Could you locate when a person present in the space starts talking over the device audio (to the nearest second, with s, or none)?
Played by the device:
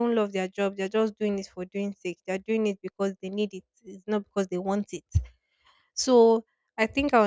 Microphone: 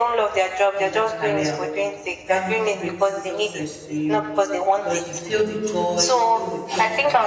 1 s